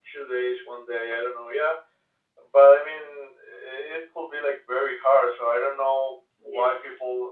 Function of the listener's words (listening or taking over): listening